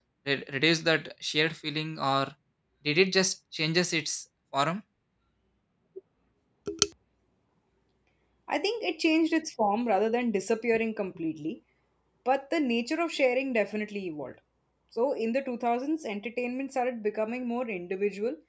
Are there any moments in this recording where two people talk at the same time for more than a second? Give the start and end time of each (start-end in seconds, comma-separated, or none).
none